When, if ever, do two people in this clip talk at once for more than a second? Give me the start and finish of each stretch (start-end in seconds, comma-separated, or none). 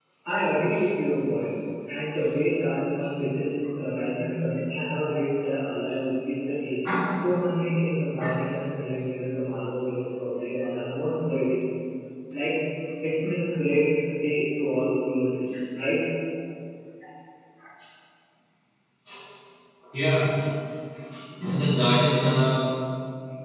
none